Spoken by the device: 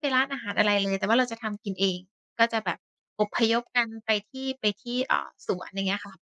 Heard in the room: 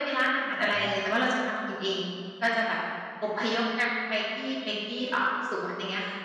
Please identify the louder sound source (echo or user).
echo